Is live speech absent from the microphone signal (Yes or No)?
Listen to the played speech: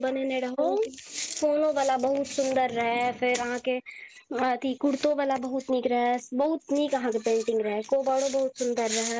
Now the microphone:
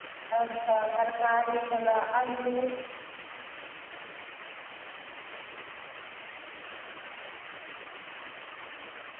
No